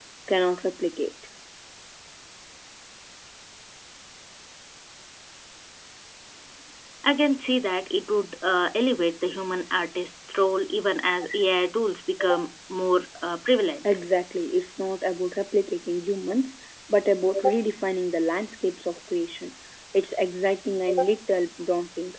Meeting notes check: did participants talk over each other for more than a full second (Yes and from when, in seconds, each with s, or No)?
No